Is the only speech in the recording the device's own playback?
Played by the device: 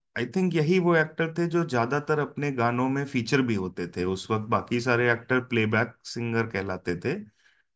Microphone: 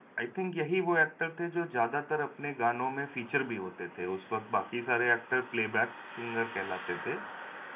Yes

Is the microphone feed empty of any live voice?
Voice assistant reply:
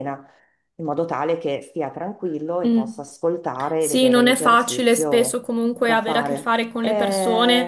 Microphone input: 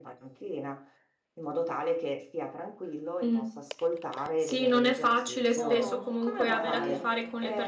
No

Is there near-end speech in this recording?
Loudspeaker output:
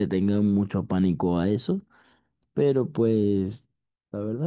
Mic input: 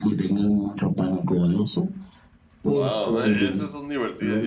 Yes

